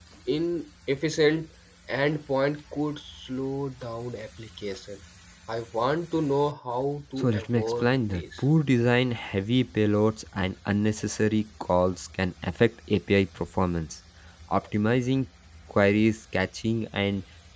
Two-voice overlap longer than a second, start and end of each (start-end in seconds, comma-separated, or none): 7.2-8.4